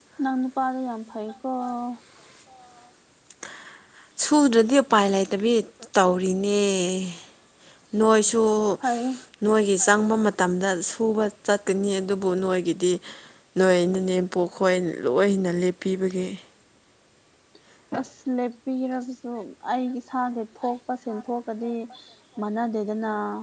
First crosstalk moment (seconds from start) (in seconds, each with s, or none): none